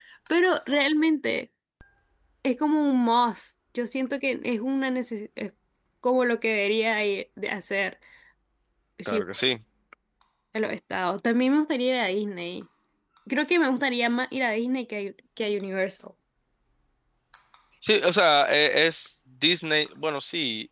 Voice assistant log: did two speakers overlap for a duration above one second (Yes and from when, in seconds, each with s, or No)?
No